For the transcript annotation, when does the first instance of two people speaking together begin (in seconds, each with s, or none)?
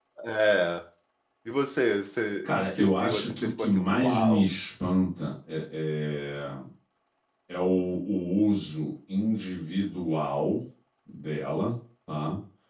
2.4 s